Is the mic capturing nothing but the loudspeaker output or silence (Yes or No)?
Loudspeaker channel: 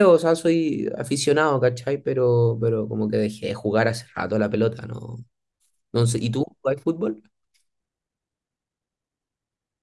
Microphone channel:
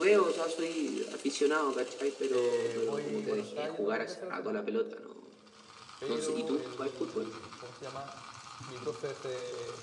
No